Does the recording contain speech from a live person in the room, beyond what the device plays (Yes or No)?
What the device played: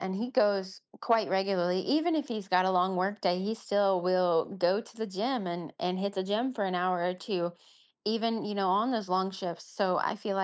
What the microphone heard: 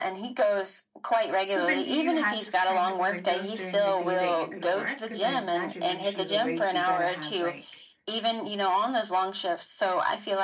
Yes